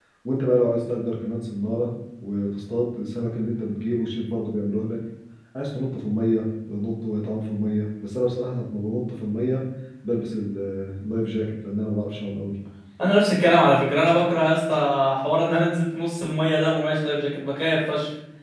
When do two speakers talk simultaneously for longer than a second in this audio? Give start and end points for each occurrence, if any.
none

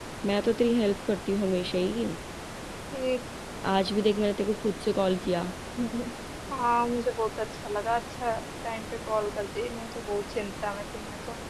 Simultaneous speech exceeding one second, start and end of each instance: none

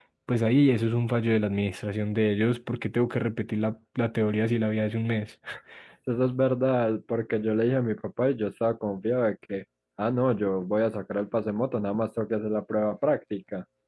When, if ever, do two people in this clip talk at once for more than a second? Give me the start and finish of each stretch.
none

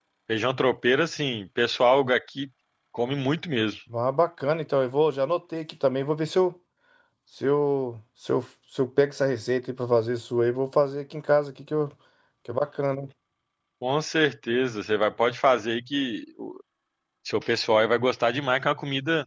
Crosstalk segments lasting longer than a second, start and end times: none

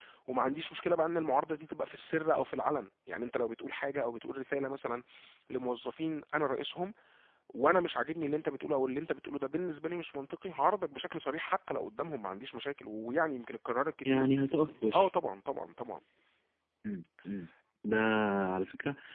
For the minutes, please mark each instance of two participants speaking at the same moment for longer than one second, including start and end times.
none

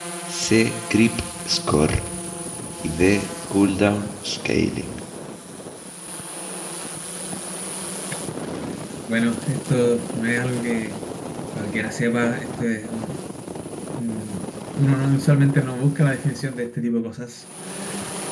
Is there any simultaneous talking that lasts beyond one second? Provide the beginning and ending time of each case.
none

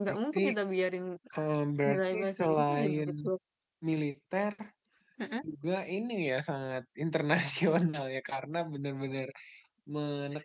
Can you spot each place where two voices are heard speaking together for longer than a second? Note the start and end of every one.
1.9-3.1

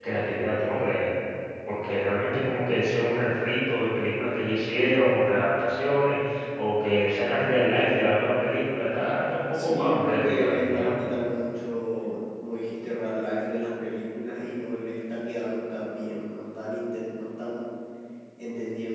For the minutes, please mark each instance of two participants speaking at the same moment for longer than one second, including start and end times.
9.5-10.9

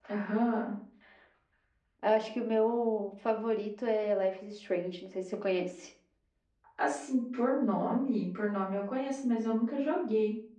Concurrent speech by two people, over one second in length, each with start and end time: none

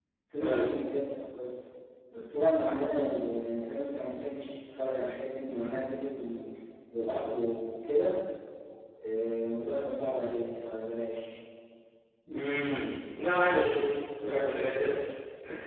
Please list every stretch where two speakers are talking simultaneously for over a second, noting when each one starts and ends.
none

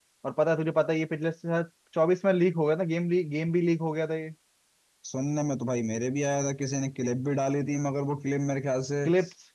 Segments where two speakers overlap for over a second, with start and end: none

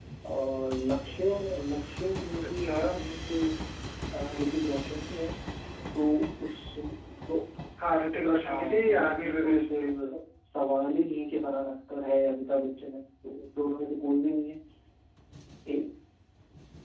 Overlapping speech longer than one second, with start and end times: 8.4-9.8

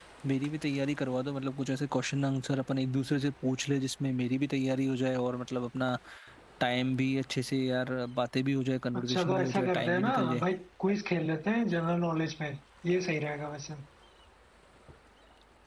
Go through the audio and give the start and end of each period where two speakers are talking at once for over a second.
8.9-10.4

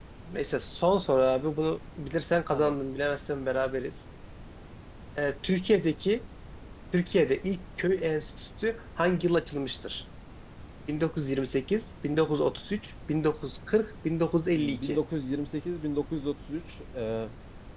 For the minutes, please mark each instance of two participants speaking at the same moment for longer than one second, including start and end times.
none

